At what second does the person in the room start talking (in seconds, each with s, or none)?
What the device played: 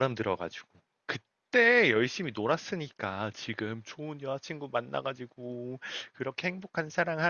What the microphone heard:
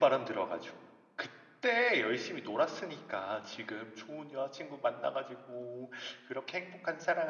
none